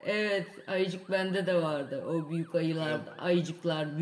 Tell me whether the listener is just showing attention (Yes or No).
Yes